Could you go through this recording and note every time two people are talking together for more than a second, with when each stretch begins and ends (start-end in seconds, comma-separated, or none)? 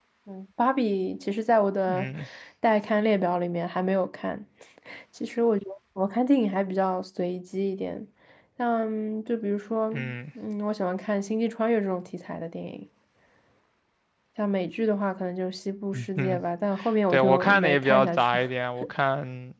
17.1-18.4